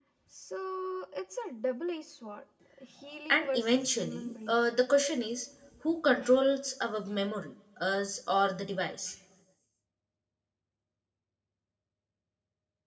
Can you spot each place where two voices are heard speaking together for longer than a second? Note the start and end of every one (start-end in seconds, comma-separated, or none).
3.3-4.6